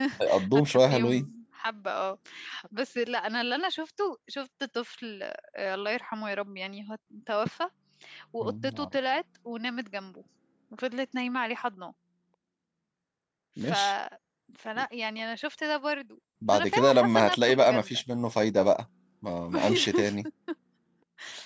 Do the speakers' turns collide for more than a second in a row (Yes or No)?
Yes